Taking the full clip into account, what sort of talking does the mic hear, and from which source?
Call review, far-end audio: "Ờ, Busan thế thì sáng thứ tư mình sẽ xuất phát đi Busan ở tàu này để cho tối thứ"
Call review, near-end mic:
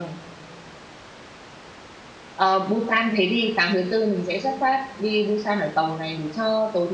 echo only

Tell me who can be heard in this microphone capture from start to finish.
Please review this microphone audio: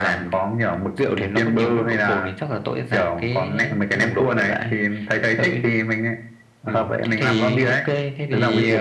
echo only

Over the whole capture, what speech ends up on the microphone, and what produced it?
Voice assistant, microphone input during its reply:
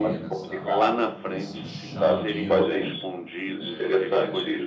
both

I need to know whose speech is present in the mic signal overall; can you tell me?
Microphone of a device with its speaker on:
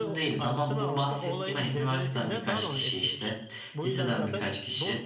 both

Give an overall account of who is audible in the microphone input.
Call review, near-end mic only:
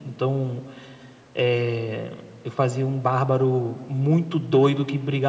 echo only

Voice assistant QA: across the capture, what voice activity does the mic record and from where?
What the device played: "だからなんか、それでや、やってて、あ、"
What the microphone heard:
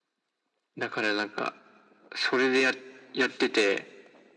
echo only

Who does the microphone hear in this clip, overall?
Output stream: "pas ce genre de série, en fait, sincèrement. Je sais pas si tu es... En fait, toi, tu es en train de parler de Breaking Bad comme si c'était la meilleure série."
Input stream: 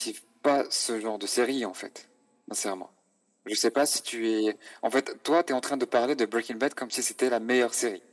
echo only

